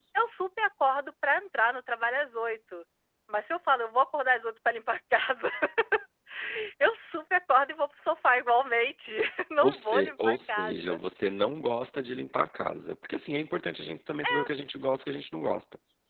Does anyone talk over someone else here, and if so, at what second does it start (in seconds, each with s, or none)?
9.6 s